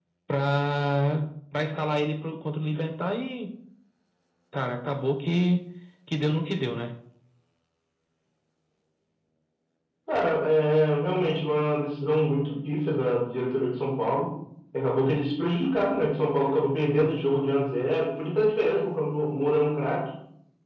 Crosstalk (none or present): none